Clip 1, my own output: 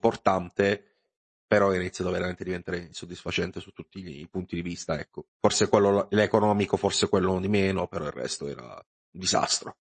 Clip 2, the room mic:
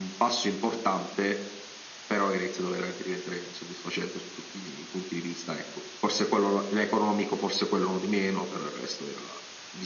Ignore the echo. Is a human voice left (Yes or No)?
No